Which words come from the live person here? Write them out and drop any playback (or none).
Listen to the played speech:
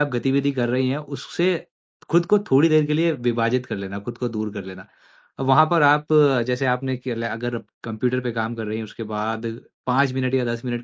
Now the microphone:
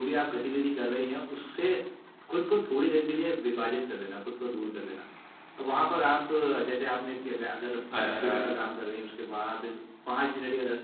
अच्छा